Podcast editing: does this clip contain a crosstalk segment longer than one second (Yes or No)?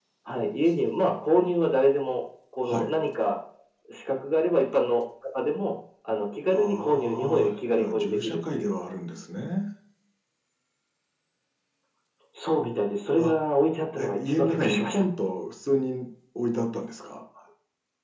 Yes